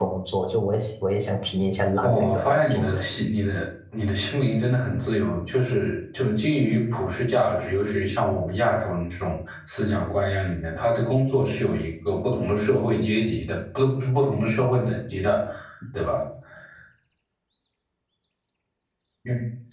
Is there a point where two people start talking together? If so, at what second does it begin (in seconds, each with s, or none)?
2.0 s